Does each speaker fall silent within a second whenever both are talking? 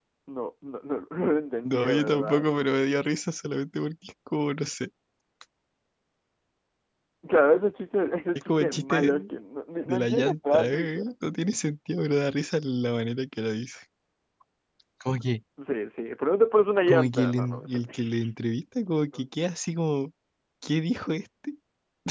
No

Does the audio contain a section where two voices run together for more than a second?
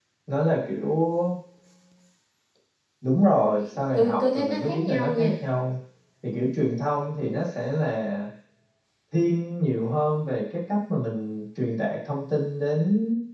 Yes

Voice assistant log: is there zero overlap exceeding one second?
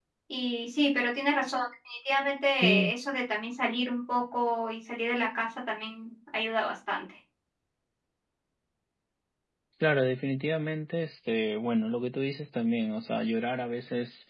Yes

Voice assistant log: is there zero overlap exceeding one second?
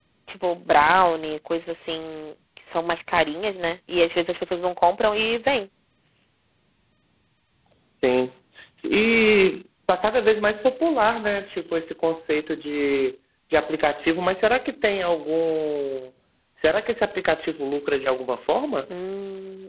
Yes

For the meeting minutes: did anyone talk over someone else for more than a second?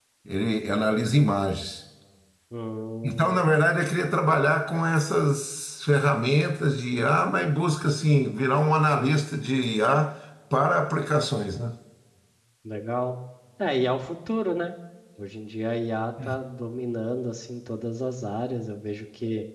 No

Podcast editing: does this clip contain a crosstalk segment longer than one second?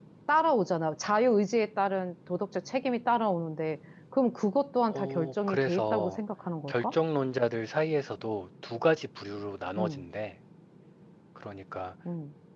Yes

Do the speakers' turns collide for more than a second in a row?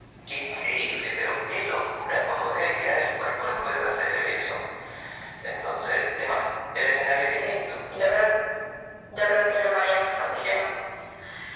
No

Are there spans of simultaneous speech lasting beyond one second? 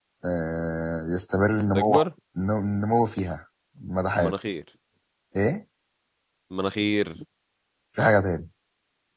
No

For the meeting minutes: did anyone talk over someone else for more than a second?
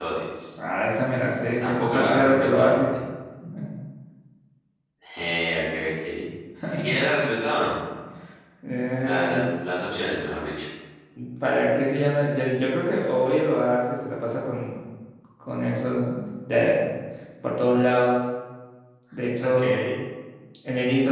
Yes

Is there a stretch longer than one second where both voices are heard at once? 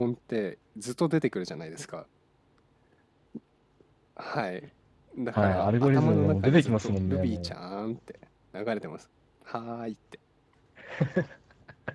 Yes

